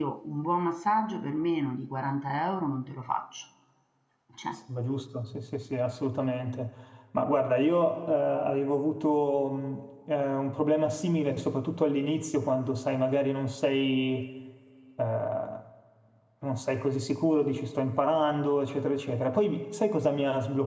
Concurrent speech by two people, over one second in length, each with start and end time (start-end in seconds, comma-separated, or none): none